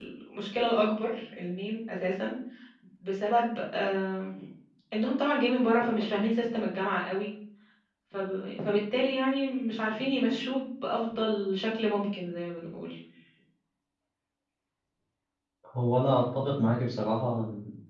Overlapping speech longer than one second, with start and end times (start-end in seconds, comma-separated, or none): none